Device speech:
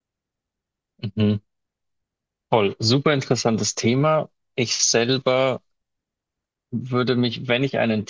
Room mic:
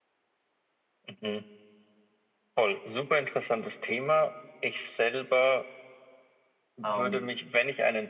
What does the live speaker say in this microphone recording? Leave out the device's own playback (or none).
Ähm,